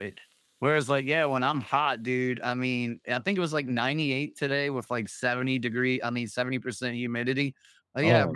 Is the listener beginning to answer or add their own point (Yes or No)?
No